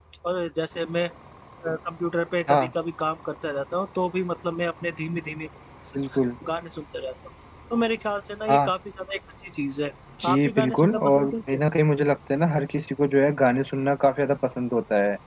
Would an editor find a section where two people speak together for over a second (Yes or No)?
Yes